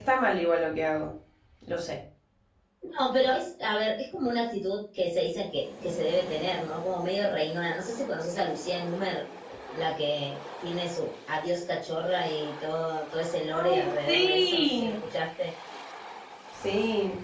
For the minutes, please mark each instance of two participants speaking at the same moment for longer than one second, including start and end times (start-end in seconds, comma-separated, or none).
13.5-14.9